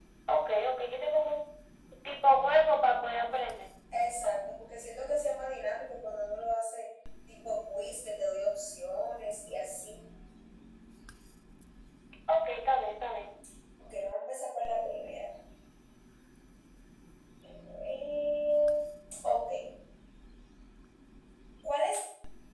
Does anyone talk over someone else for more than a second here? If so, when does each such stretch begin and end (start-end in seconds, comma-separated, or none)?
none